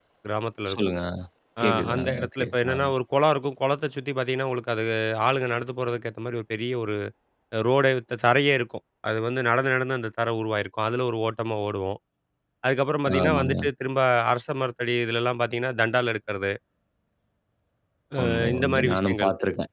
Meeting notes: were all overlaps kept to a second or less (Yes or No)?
No